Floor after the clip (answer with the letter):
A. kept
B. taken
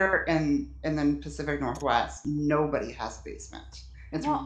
A